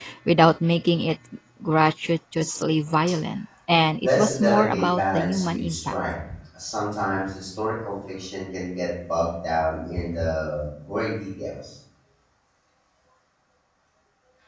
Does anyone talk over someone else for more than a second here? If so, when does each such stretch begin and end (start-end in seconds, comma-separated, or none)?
4.0-5.8